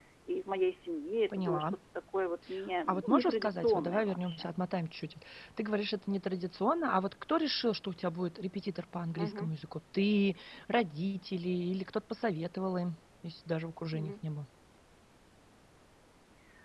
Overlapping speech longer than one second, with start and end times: 2.9-4.5

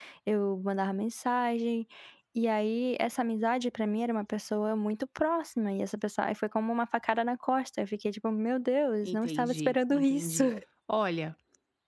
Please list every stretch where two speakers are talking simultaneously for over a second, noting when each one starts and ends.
9.0-10.4

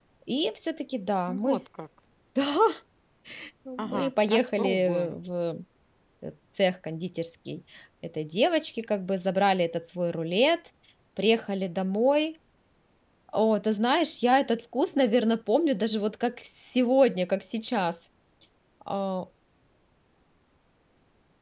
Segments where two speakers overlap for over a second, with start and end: 3.8-5.2

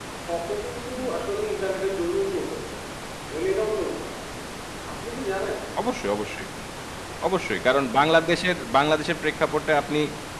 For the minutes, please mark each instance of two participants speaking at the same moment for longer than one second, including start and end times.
none

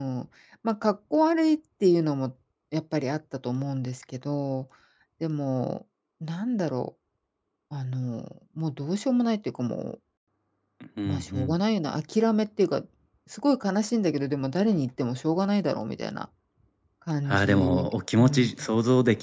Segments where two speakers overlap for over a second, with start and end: 17.3-18.5

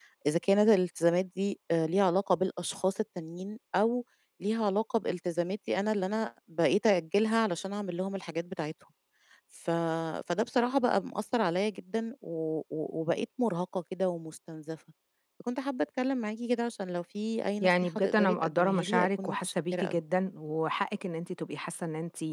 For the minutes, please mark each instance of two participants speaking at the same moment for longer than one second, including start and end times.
17.6-20.0

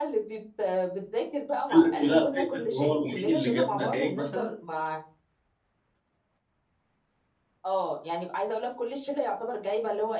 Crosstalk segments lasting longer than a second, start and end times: 1.7-4.5

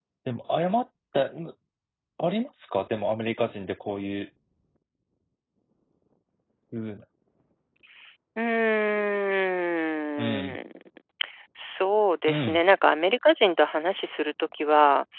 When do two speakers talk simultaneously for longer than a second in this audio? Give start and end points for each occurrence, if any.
none

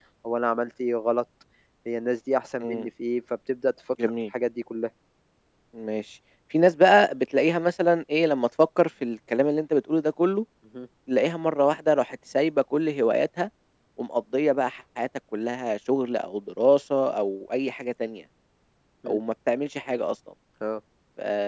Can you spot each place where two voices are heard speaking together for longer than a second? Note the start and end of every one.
none

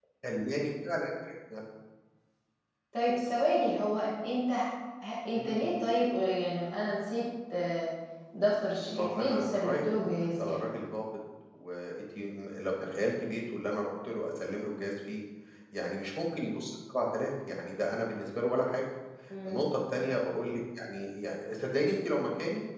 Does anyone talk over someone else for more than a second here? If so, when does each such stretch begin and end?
8.9-10.7

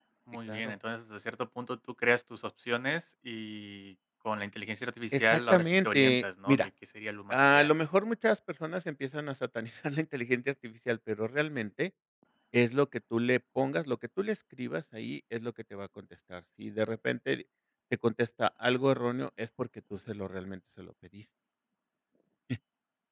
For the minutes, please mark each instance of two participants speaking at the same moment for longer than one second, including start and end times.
5.1-6.7

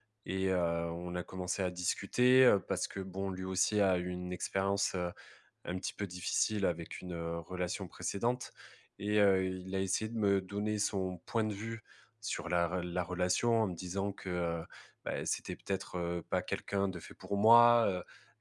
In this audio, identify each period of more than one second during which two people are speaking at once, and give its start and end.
none

